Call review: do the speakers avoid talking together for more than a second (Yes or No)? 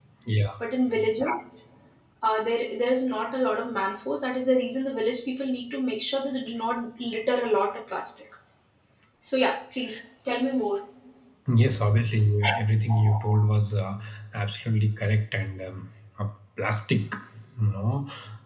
Yes